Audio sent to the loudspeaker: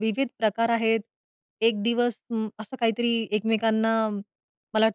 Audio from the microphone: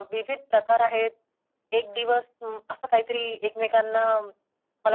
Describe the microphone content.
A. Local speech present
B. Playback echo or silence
B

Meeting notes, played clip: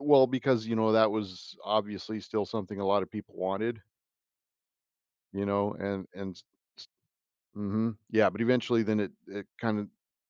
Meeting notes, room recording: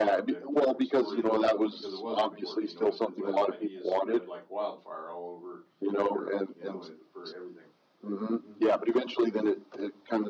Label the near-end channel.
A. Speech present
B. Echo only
A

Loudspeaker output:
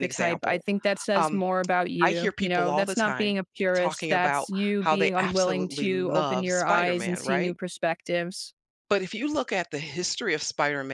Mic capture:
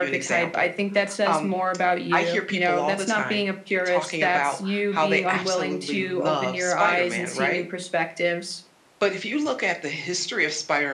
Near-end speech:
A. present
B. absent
B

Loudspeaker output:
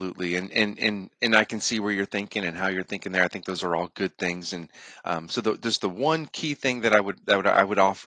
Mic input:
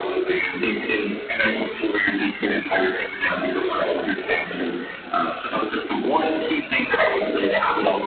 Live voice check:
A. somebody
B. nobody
B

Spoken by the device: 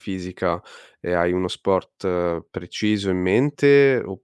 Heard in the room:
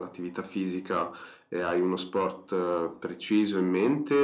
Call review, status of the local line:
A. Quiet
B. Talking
A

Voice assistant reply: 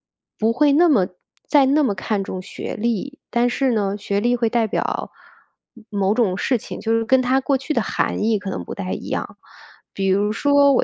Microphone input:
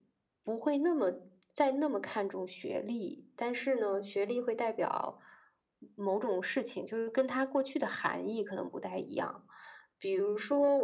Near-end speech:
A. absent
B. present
A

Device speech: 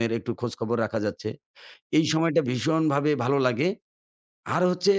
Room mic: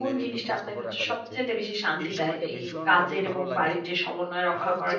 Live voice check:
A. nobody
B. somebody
B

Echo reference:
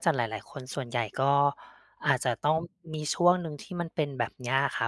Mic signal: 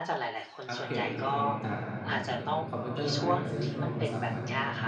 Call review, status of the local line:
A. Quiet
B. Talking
B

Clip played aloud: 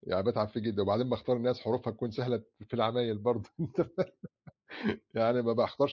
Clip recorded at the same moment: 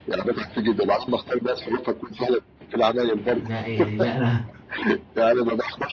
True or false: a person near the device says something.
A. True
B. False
A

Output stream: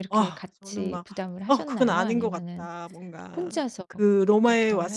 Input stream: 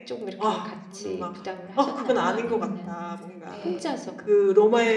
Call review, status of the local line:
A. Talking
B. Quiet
A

